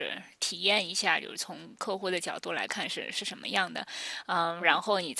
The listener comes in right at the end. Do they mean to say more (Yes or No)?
No